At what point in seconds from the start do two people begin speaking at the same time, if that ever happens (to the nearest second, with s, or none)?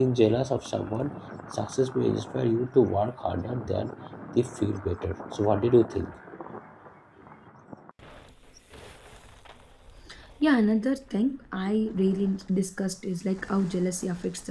none